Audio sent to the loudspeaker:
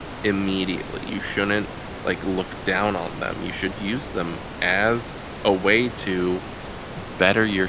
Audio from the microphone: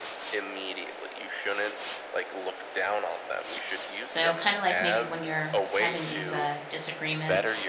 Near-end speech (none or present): present